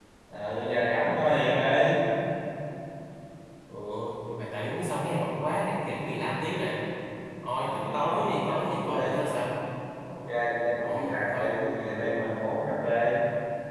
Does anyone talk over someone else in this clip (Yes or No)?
Yes